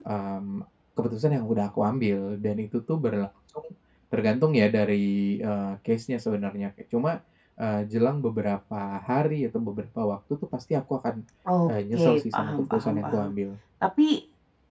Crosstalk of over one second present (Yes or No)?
Yes